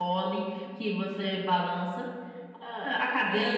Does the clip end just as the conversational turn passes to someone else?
Yes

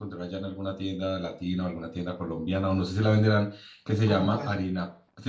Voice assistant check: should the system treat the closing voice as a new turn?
No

